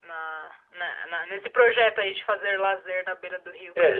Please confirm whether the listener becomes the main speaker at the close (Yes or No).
Yes